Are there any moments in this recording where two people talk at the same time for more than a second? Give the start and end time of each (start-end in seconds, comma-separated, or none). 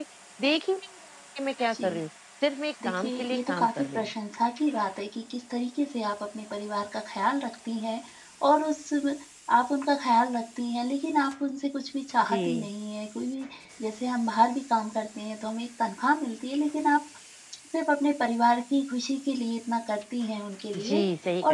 2.8-4.1